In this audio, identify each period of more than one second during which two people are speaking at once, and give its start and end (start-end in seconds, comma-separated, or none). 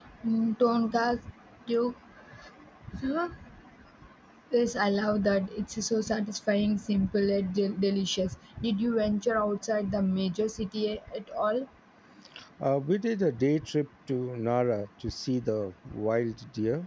none